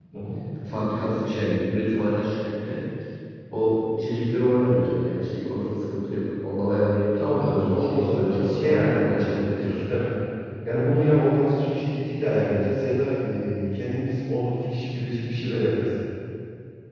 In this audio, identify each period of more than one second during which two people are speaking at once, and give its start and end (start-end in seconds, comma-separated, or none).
7.3-9.8